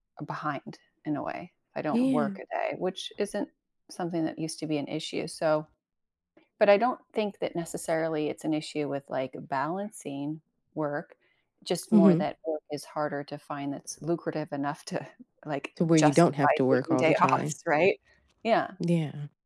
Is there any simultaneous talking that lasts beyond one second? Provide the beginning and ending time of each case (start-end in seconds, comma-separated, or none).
16.0-17.5